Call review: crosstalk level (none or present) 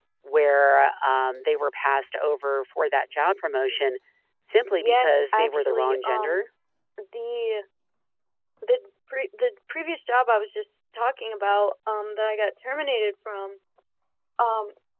present